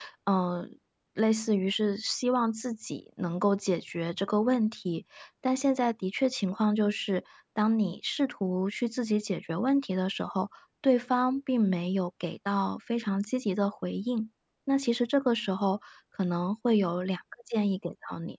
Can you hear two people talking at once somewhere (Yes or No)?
No